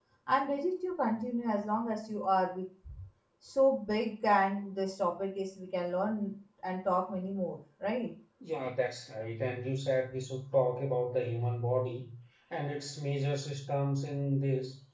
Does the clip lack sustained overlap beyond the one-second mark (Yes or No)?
Yes